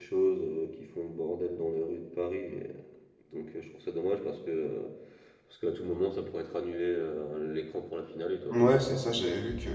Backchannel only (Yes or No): No